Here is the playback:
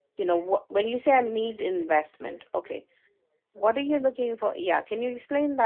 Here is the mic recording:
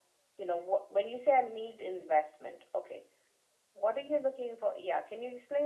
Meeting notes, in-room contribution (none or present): none